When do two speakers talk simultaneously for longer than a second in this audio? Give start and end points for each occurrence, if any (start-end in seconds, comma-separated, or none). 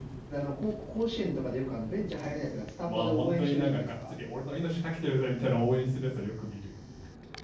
2.8-4.1